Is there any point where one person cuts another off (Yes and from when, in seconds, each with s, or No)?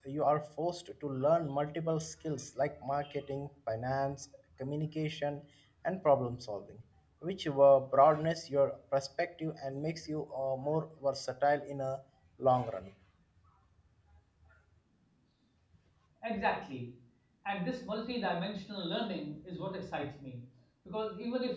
No